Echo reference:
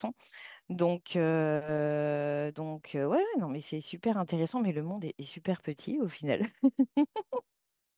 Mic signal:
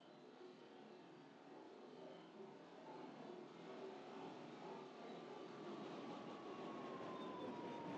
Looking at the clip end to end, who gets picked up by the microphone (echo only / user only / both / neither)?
neither